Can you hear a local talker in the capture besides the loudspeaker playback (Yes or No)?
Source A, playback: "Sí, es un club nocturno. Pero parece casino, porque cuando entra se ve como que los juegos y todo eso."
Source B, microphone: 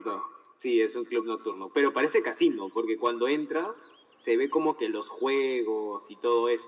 No